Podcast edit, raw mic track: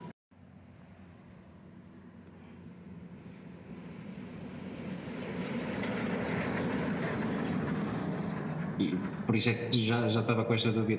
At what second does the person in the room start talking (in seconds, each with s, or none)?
8.8 s